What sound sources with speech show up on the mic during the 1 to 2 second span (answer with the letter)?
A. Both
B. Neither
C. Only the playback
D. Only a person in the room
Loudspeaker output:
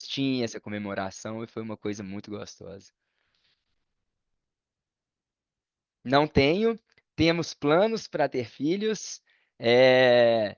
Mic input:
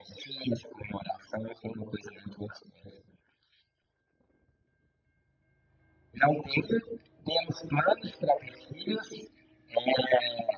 C